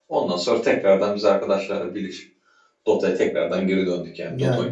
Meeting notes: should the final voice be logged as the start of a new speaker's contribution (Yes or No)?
Yes